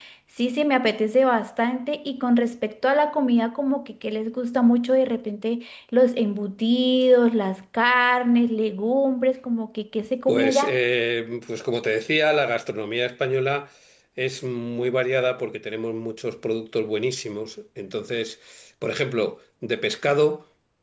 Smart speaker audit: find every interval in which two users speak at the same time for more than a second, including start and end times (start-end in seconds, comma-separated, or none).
none